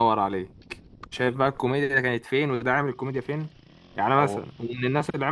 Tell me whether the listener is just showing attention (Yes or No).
Yes